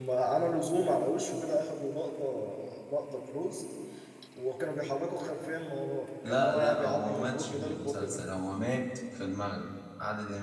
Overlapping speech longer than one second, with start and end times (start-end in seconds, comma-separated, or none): 6.3-8.2